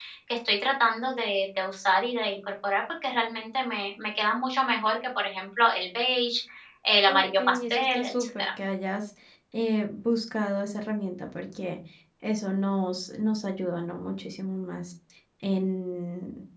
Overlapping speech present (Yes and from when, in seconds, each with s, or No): Yes, from 7.1 s